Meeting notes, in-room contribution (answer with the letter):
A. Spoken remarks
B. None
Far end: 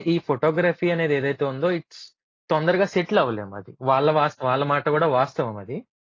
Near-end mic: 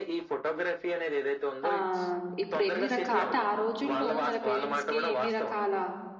A